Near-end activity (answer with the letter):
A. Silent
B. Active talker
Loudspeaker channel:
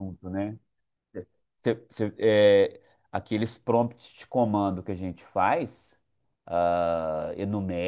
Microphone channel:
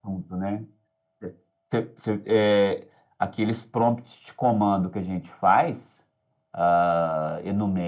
A